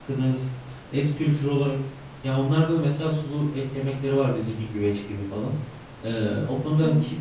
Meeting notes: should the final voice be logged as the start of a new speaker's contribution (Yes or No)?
No